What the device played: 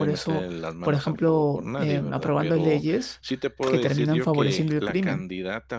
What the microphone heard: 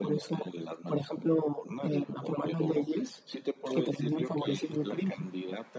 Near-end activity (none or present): none